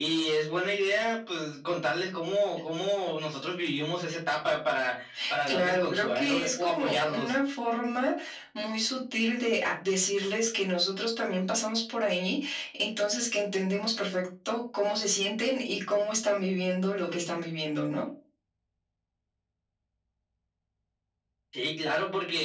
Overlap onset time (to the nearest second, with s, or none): 5 s